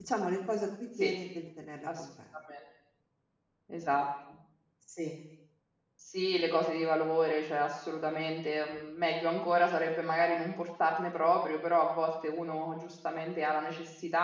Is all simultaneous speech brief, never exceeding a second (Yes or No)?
Yes